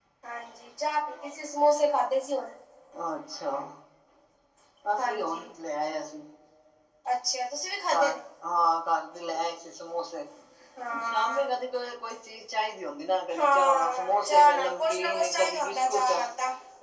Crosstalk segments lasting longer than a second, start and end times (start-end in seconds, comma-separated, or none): 13.4-16.1